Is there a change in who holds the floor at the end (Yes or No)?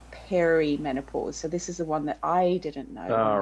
No